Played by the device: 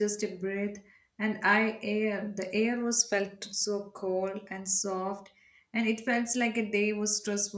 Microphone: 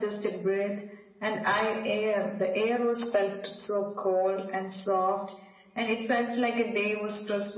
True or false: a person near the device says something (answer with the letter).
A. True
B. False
B